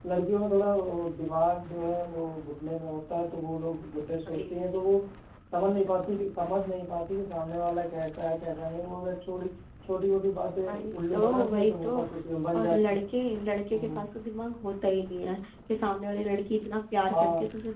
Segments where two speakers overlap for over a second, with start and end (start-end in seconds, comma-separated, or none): 10.7-12.1